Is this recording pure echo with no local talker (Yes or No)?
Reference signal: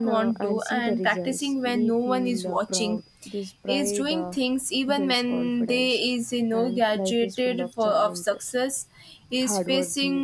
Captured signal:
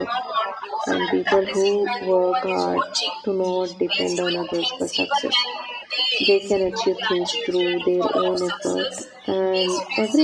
No